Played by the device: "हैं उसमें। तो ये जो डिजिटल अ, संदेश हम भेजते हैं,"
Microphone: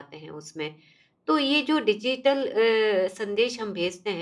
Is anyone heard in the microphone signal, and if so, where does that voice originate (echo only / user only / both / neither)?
echo only